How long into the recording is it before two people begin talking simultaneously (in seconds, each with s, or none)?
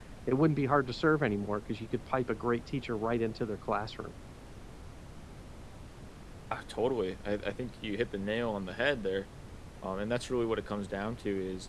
none